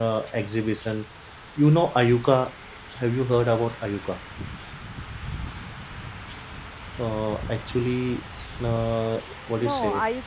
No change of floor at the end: No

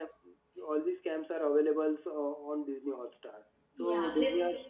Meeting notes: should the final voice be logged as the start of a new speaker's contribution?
No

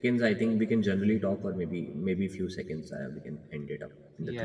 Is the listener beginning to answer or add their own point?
Yes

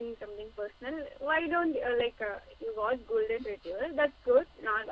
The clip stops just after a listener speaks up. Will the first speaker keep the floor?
Yes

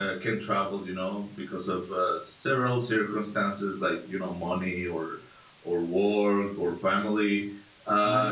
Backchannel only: No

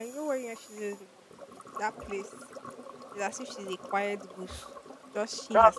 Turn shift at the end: Yes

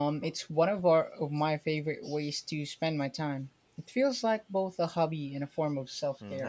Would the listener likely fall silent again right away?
No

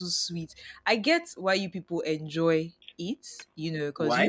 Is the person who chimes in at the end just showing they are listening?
Yes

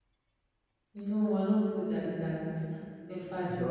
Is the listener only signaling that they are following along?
Yes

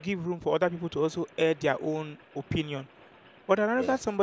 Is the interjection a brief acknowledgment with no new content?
Yes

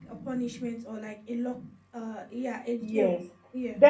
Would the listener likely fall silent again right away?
No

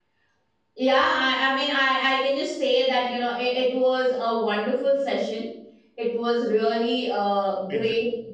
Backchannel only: Yes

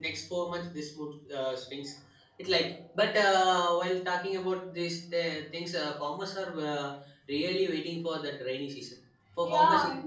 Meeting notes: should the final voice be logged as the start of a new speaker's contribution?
No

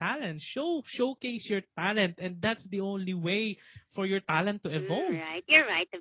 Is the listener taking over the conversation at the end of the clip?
Yes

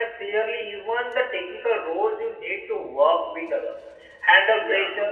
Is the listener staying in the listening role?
Yes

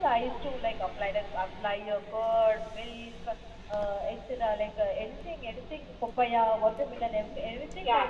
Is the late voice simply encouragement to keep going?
No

